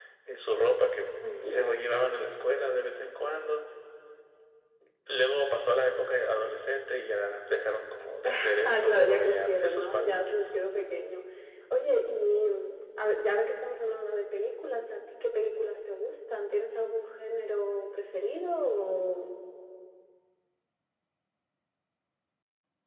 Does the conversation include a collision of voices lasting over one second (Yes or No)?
Yes